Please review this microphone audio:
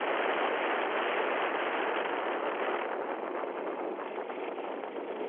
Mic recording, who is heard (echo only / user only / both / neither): neither